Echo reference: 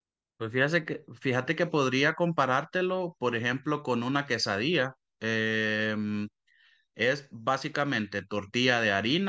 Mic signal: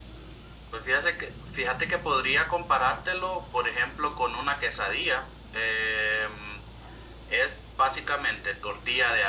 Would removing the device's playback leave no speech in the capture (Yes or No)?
Yes